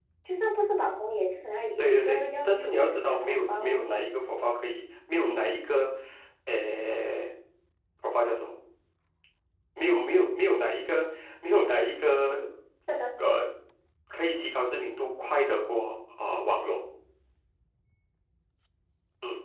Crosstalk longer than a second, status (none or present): present